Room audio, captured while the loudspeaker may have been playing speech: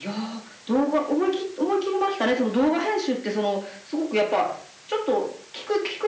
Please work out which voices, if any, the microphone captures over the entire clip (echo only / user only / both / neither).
echo only